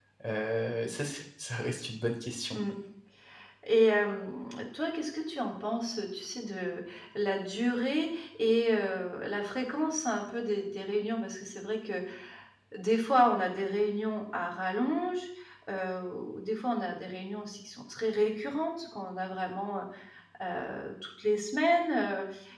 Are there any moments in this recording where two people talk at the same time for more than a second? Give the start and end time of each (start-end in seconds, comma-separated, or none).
none